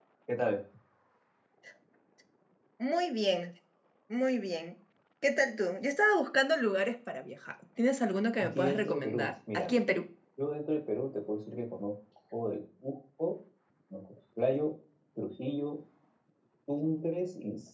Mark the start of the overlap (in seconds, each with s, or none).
8.4 s